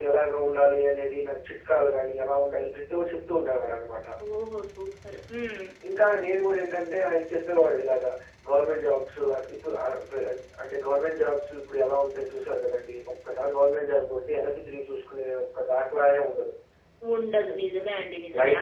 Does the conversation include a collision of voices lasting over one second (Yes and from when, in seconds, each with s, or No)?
No